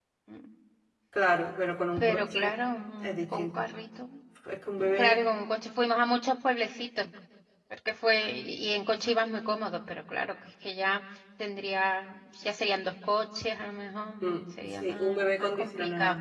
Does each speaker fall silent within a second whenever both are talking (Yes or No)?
No